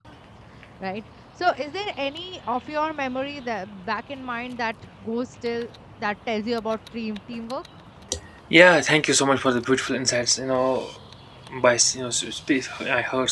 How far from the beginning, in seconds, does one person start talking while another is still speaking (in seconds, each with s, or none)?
none